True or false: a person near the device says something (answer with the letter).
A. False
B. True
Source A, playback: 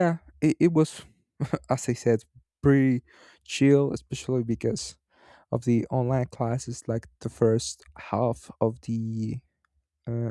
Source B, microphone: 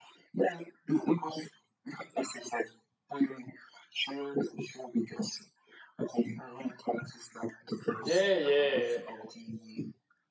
B